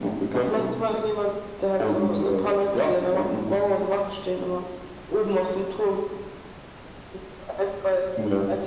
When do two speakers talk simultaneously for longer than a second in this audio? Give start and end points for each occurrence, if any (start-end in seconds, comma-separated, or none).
1.8-3.6